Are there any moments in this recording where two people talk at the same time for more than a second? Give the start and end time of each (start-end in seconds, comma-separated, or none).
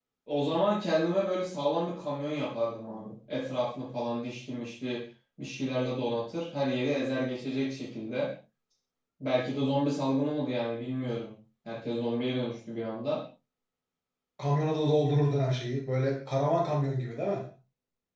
none